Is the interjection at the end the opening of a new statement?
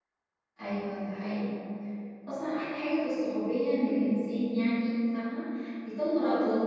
No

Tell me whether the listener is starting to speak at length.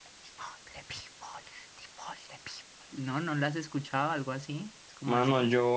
Yes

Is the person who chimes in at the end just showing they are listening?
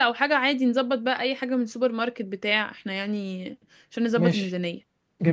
No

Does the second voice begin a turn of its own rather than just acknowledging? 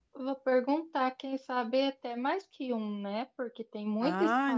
Yes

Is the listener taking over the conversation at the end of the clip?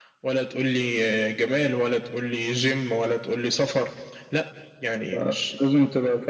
Yes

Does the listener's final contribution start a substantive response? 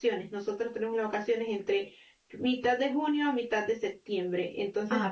No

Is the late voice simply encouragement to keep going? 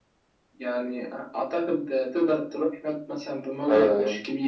No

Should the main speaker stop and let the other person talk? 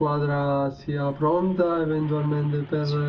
Yes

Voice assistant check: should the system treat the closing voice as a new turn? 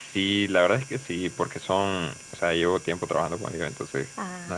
No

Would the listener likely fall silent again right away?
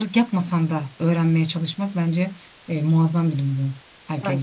No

